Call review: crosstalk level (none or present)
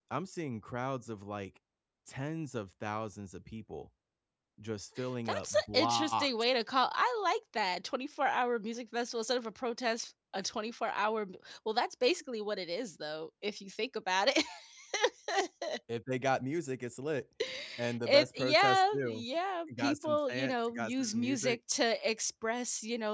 present